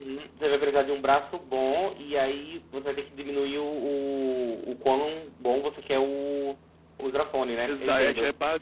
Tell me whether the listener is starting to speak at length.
Yes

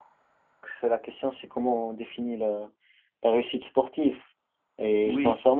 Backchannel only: Yes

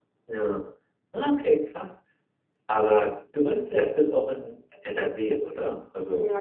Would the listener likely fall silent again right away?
No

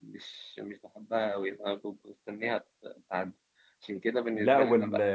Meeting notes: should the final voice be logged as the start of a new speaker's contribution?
Yes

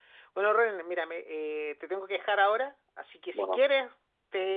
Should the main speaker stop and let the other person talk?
No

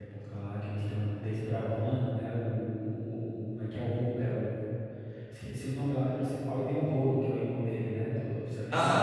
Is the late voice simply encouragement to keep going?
No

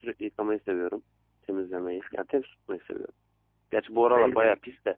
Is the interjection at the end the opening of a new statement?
Yes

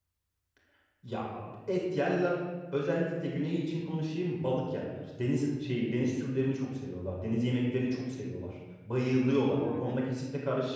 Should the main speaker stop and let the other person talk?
No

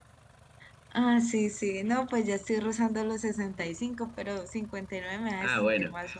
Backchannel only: No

